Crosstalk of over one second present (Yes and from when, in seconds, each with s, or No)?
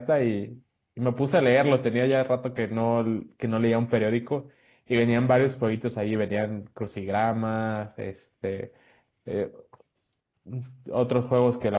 No